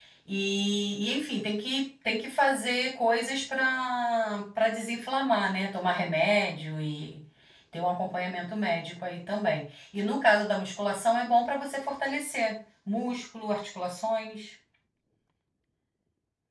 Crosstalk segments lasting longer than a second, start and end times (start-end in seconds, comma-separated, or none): none